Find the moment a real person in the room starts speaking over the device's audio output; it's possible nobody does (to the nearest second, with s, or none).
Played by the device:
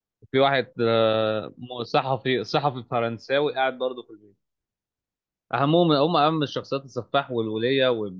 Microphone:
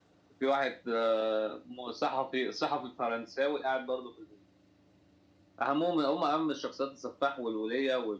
none